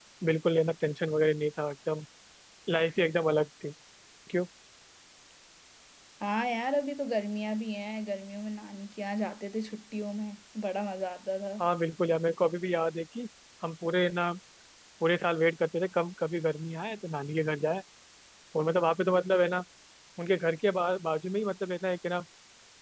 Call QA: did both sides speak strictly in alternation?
Yes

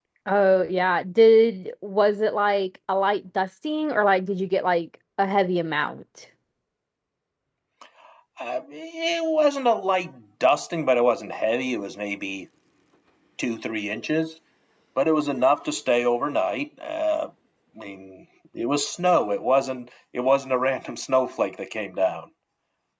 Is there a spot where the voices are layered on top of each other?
No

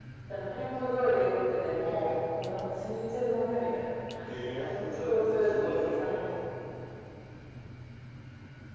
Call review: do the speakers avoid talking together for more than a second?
No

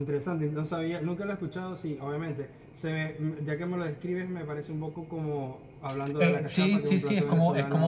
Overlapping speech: Yes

